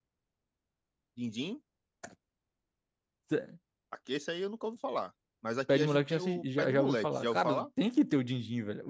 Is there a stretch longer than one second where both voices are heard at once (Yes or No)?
Yes